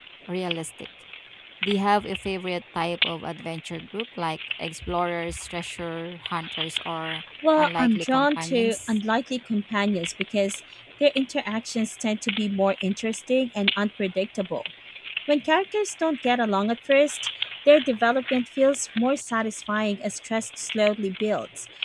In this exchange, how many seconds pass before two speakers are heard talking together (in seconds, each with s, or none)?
7.4 s